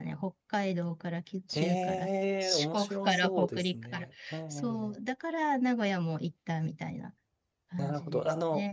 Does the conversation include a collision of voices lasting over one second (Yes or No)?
Yes